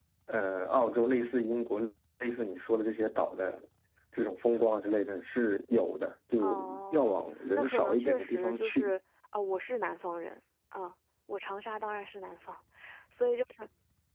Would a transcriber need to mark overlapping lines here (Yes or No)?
Yes